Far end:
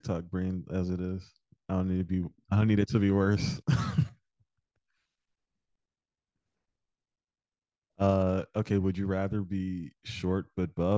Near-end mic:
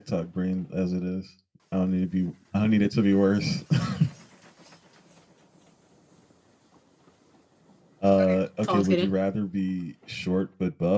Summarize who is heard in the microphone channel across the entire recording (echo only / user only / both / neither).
both